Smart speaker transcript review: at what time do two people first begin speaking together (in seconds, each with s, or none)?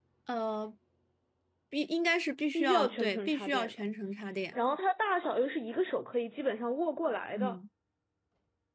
2.5 s